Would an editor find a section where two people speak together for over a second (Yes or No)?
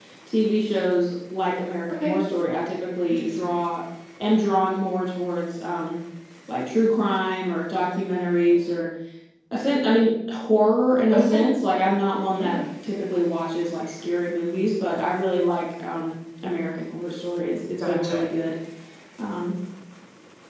No